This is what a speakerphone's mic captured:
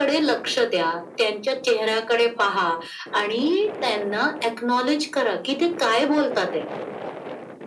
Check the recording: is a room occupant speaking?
No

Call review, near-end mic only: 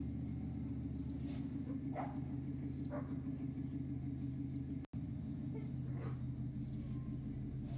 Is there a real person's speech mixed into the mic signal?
No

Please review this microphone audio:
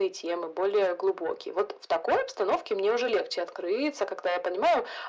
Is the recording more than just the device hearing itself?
No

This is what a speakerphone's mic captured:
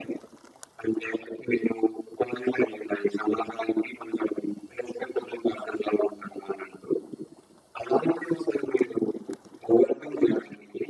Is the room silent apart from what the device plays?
Yes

